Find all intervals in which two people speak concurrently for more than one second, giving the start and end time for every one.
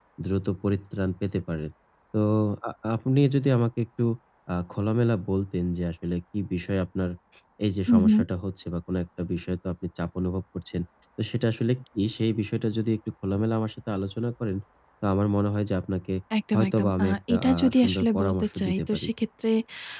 16.5-19.1

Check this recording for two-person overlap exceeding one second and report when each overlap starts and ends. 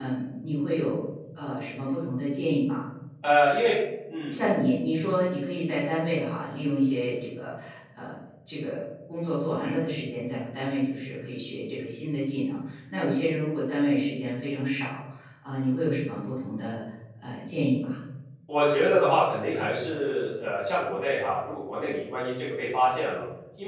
none

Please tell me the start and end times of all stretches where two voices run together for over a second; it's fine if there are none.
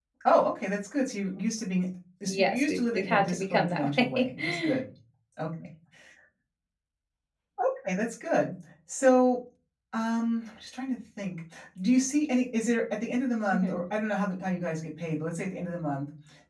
2.3-4.8

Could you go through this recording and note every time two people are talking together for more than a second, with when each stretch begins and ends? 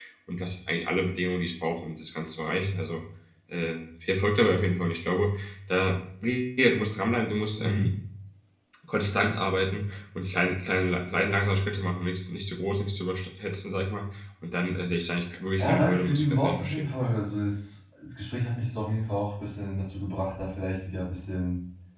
15.6-16.9

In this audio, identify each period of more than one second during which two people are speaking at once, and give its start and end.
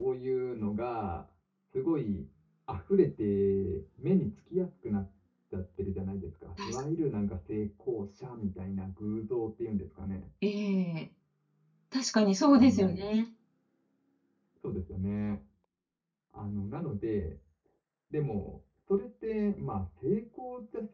none

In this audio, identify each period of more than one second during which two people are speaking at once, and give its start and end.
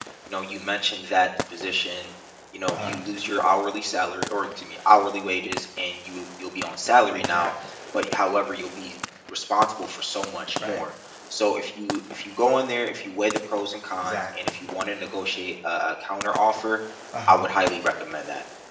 none

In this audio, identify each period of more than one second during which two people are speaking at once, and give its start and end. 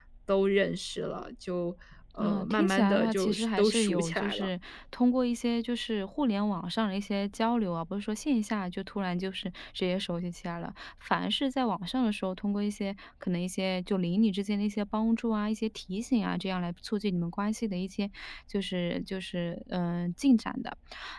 2.2-4.5

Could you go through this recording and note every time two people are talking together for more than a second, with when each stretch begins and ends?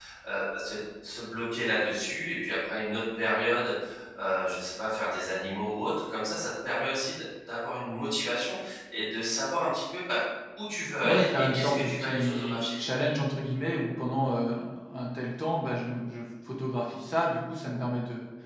11.0-12.8

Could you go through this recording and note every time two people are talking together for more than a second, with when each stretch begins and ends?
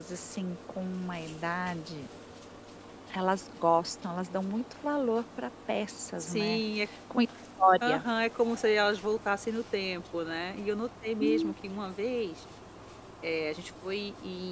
none

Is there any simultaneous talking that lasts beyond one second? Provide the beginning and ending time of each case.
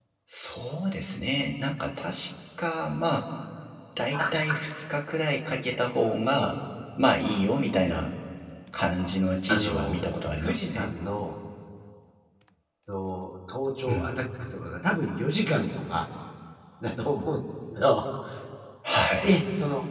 none

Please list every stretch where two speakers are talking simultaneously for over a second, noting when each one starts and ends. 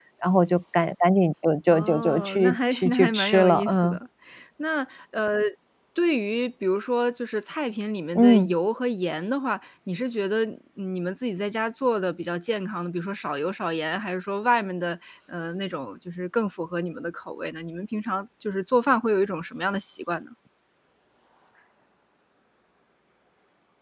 1.7-4.0

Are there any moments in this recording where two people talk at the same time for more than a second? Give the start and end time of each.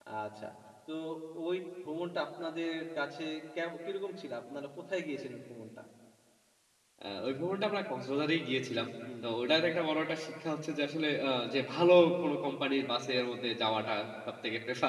none

